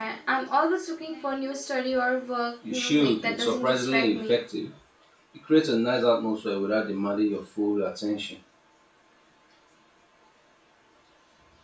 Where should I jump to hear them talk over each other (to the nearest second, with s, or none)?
3 s